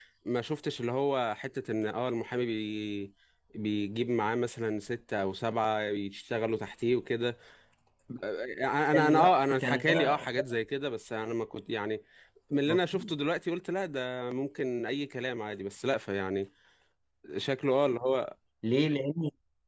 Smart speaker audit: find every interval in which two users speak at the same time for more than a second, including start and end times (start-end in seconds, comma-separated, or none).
8.9-10.3